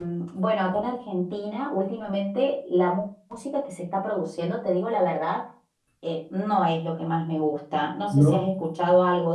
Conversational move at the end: listening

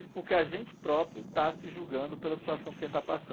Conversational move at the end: taking over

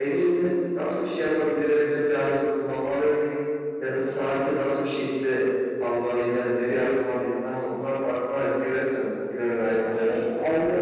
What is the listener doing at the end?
taking over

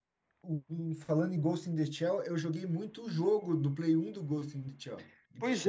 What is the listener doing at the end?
taking over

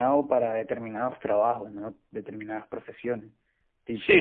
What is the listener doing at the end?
taking over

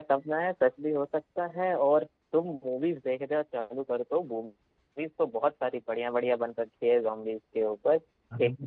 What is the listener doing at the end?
listening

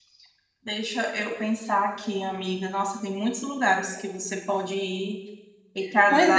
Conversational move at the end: taking over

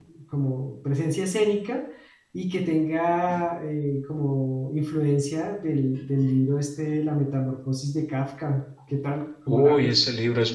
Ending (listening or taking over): taking over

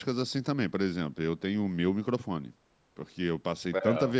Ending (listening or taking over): listening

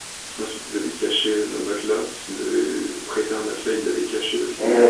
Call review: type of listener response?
taking over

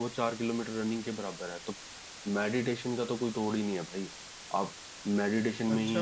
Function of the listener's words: taking over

